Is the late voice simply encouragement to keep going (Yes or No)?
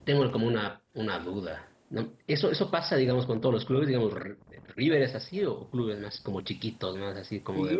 No